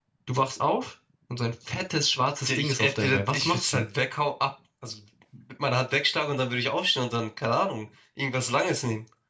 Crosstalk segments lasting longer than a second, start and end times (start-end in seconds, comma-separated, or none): 2.5-3.9